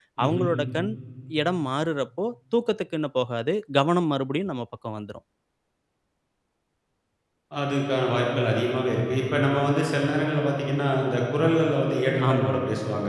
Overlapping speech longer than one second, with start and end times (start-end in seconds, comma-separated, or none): none